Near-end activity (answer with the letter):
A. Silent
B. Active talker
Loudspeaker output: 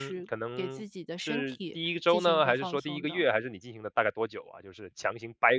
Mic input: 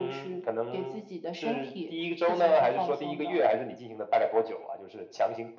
A